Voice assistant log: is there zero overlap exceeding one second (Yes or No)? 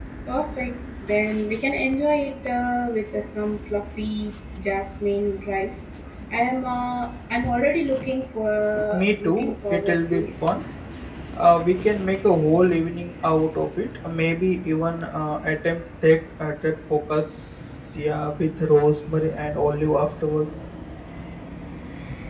No